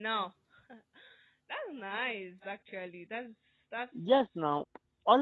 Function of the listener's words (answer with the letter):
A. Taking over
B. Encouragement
A